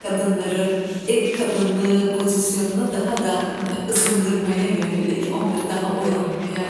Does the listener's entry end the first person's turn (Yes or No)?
No